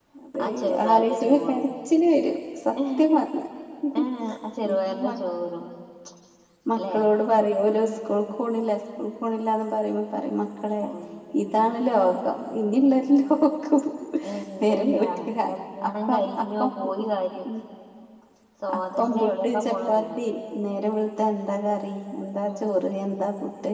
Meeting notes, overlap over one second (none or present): present